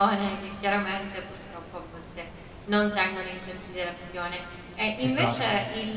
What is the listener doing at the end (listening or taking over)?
listening